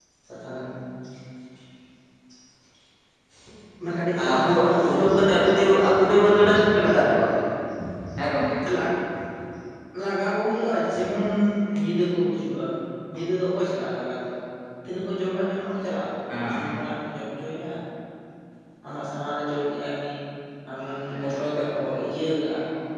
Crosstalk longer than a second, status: present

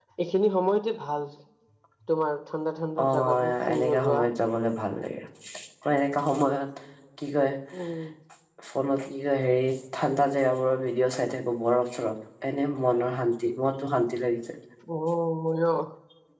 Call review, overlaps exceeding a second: present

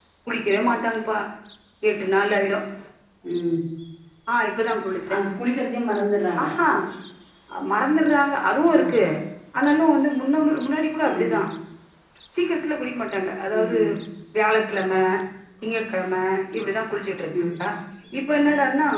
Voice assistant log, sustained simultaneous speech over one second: none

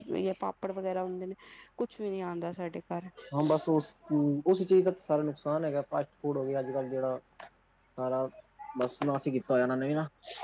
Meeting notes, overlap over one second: none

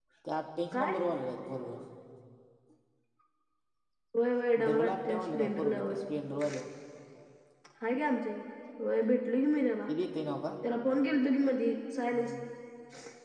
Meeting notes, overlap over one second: present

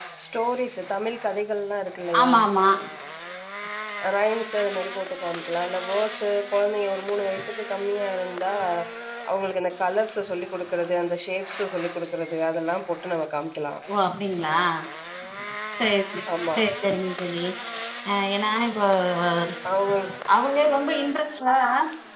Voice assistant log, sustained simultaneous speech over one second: none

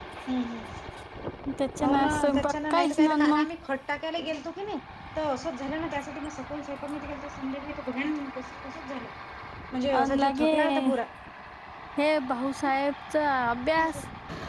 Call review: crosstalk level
present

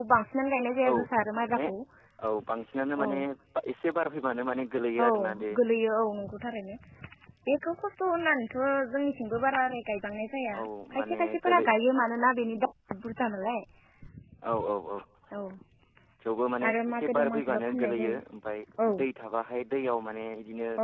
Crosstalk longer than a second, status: present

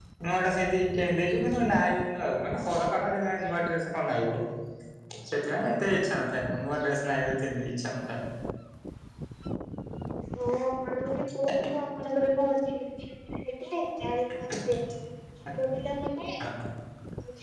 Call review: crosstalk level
none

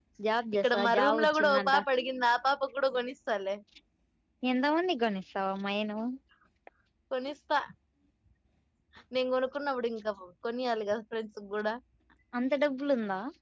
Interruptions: present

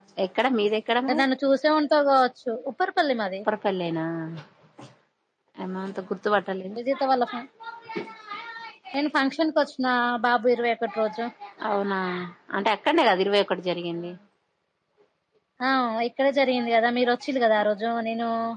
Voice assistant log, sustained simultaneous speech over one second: none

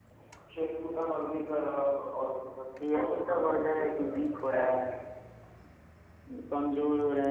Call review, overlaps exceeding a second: present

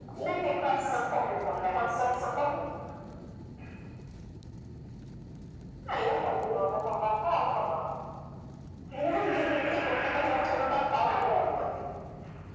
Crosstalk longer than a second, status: present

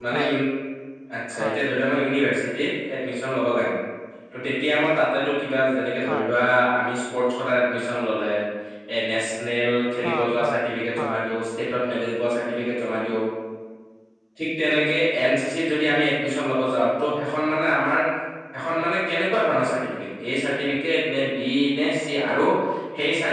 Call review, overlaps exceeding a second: present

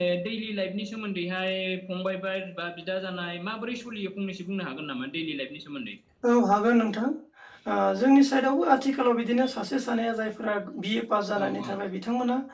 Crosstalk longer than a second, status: none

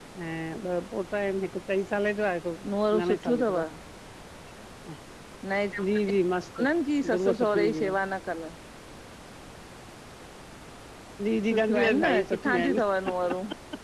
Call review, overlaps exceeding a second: present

